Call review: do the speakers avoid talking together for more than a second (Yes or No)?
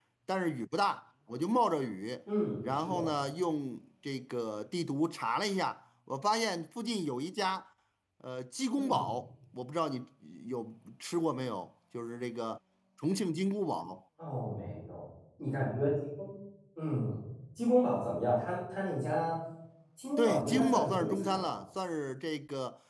No